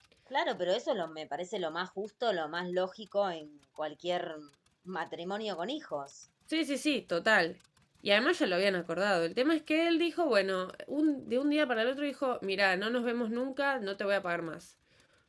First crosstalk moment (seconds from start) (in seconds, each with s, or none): none